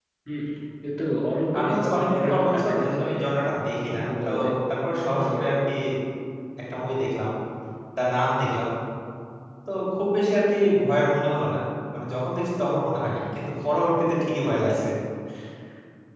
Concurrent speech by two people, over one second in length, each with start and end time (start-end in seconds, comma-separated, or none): 1.6-3.3